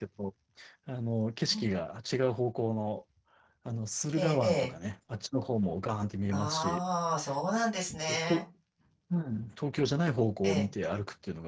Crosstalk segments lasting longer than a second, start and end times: none

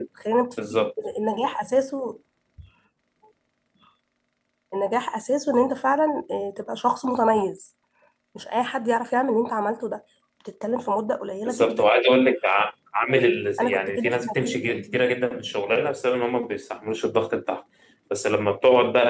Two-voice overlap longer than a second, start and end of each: 13.6-15.0

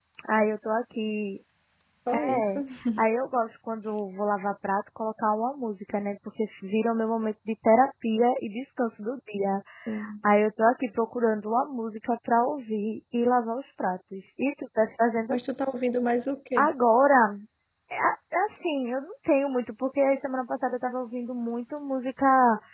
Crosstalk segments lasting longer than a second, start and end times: none

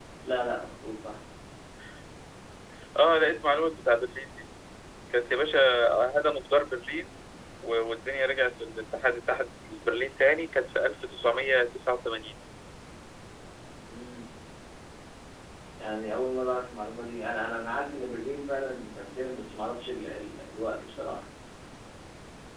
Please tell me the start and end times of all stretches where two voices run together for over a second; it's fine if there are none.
none

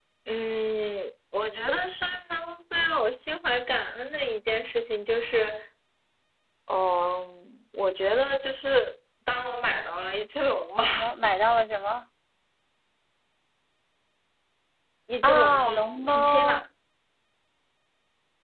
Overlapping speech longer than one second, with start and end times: 15.2-16.6

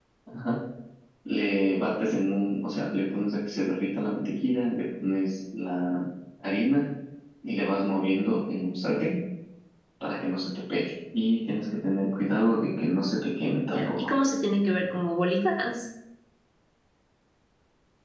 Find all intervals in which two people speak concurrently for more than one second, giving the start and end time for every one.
none

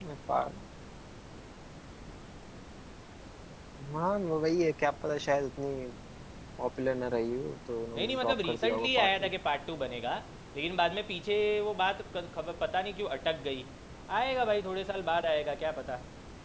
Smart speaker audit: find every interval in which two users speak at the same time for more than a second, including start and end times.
8.0-9.3

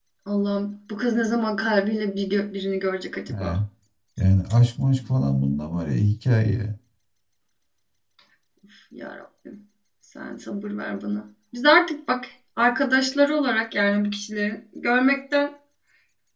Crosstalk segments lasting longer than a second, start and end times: none

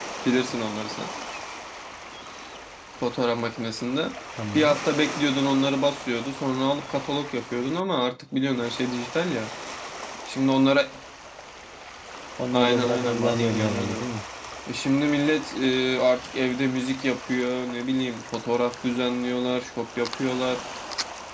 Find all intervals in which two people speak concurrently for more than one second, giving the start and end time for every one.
12.5-14.0

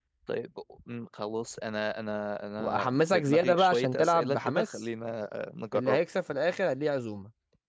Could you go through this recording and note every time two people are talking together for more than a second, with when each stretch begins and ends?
2.6-4.8

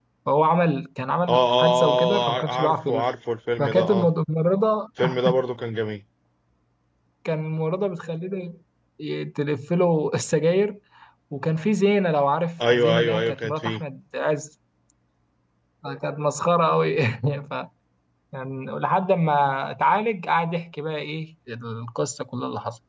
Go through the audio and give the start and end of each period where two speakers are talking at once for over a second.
1.3-3.1, 12.6-13.8

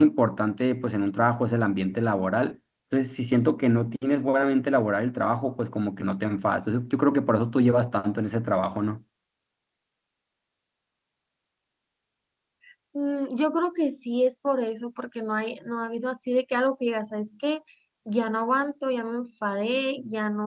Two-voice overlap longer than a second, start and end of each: none

